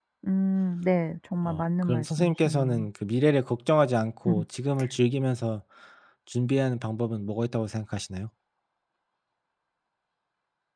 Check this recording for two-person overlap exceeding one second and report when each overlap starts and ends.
1.4-2.8

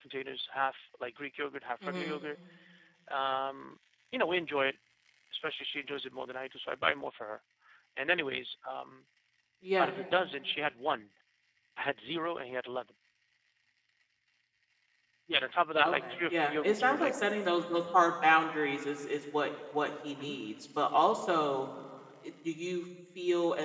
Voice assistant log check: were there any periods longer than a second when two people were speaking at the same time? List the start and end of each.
15.8-17.1

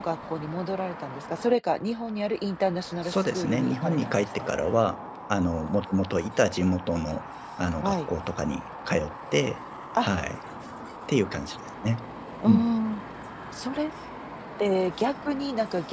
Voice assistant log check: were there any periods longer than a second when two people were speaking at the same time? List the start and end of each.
3.0-4.5

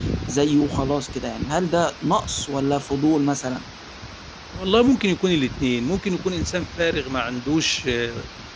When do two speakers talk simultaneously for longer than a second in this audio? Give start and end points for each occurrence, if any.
none

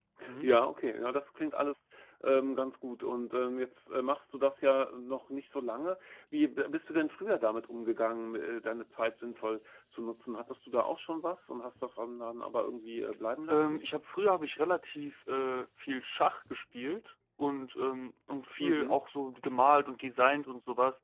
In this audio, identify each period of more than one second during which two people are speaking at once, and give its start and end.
none

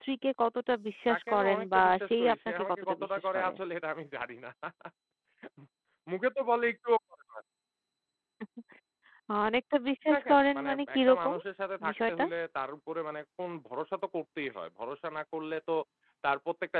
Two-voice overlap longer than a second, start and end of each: 1.1-3.5, 10.1-11.3

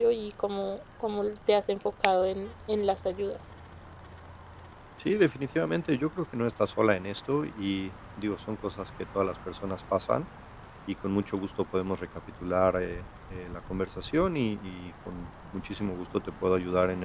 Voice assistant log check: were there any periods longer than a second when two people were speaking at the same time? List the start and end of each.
none

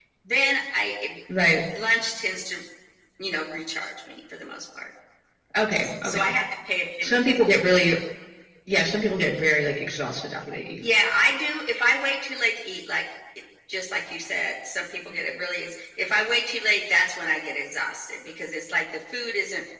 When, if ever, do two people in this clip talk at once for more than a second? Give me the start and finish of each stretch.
none

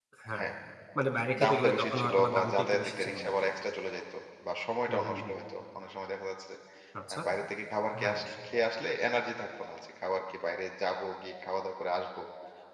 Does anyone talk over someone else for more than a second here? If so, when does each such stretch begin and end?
1.4-3.5

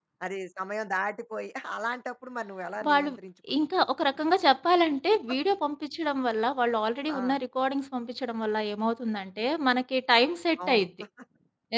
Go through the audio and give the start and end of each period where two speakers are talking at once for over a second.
none

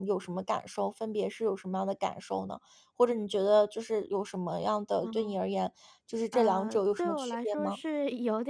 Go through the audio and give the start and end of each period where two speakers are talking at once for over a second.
6.3-7.8

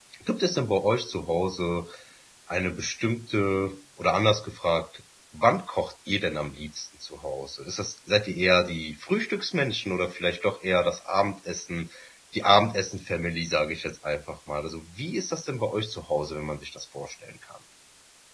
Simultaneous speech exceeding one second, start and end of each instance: none

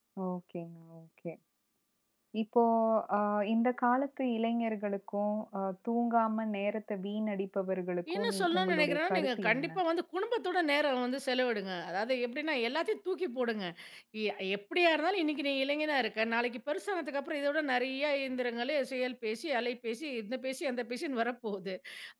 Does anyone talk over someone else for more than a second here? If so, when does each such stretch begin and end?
8.2-9.7

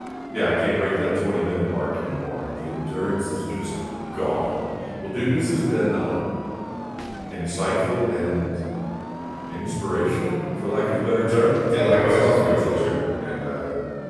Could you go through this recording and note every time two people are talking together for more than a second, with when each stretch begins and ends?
11.7-12.9

